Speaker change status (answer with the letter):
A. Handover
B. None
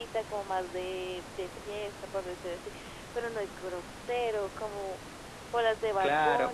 A